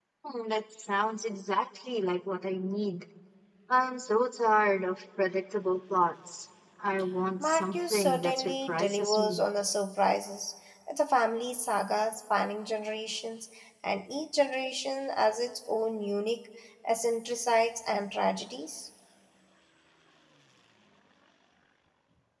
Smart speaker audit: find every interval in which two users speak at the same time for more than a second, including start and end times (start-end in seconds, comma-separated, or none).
7.4-9.4